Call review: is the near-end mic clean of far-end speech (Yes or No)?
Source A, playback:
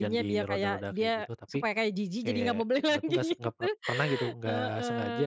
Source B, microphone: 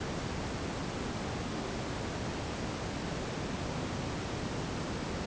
Yes